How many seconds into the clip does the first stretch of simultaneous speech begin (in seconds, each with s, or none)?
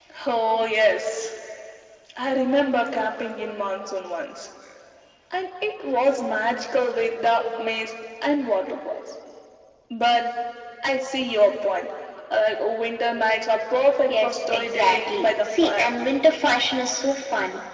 14.1 s